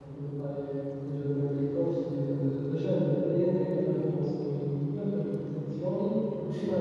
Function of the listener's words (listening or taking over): listening